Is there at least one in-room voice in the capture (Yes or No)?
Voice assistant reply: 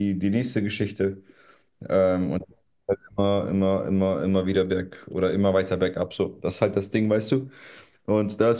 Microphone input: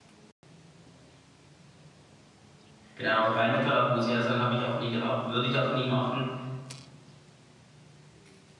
Yes